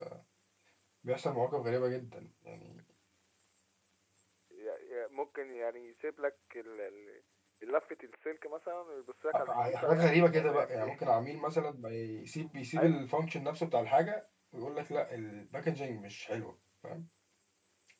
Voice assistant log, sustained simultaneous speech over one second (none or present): present